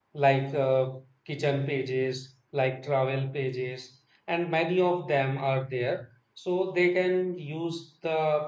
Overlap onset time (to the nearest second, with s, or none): none